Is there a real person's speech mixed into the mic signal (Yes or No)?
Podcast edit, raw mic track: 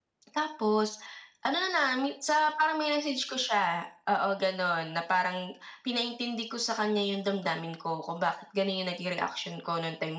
No